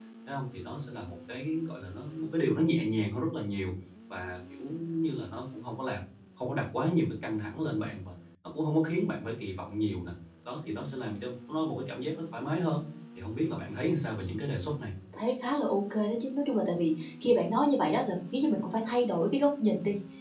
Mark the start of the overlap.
none

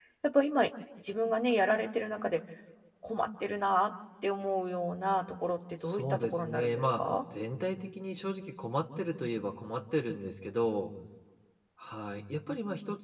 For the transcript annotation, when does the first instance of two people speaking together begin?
5.8 s

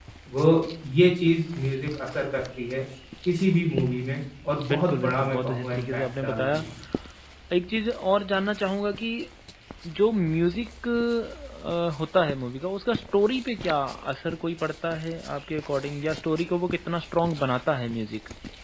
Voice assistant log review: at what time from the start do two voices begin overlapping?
4.6 s

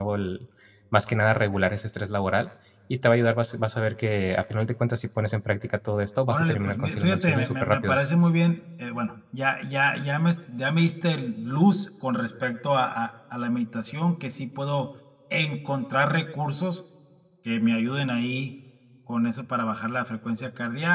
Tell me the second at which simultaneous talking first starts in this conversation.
6.3 s

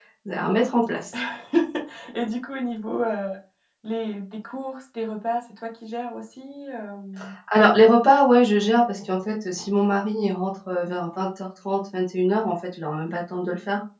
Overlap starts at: none

